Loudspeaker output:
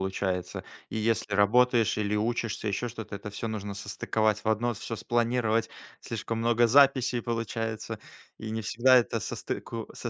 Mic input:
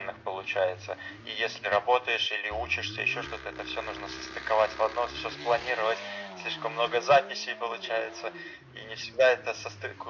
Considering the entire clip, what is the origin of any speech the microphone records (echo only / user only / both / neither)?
echo only